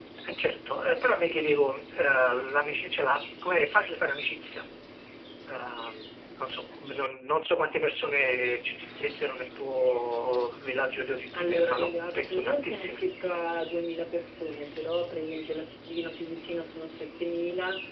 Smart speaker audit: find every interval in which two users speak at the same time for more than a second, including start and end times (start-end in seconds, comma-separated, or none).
11.3-13.0